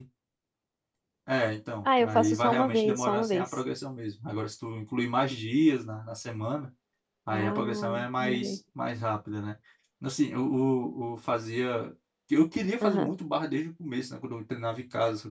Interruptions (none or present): present